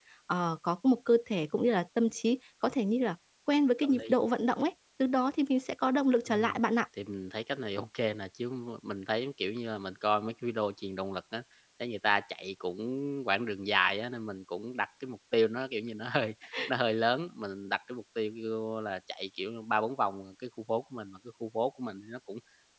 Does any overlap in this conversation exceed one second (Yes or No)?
No